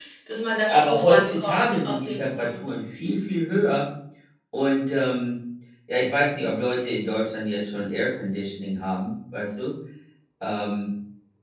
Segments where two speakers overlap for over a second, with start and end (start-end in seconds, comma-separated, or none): 0.7-2.7